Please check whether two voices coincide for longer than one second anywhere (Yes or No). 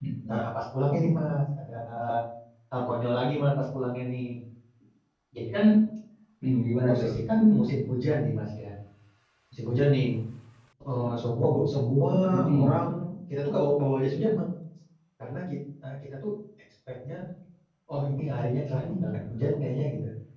No